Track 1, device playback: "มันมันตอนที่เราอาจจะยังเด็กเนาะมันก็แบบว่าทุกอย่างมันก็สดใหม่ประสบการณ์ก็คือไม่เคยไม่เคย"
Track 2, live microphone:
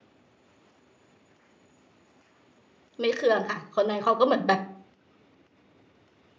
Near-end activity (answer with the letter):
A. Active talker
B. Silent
A